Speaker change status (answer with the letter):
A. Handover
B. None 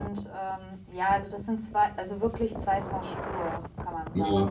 A